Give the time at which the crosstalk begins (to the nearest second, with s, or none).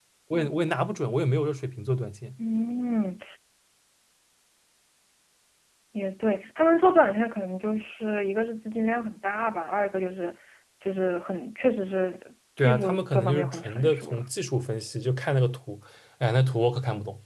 13 s